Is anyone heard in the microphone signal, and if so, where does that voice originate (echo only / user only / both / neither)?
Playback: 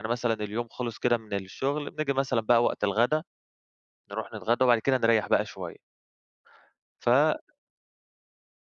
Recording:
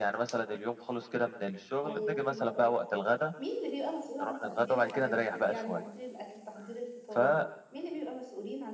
both